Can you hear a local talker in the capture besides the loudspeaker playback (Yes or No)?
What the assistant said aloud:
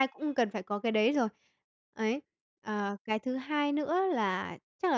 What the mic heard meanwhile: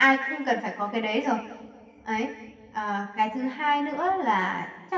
No